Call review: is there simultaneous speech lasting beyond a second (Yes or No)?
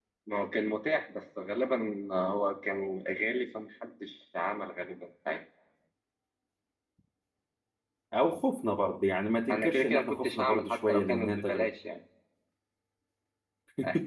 Yes